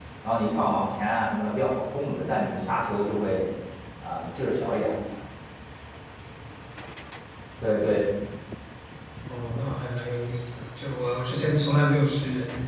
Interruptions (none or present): none